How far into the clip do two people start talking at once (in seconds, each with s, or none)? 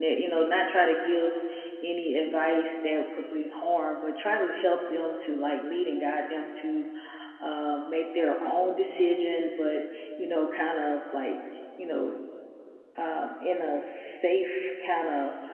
none